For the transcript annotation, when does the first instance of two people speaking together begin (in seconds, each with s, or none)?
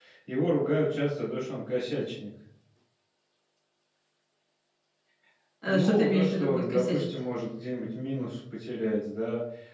5.6 s